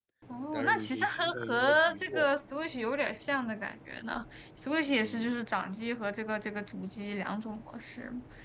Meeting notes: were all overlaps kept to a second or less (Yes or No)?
No